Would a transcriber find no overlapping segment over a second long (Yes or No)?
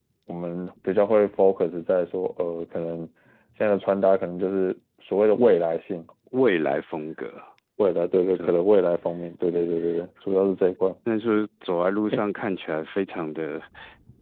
Yes